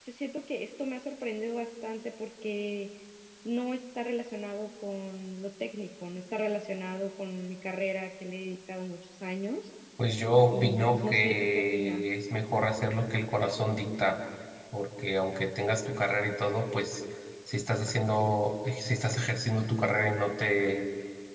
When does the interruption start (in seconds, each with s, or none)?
10.5 s